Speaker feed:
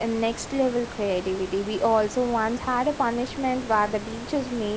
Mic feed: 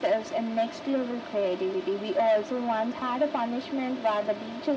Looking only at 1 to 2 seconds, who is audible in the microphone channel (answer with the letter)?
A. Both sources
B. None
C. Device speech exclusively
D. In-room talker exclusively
C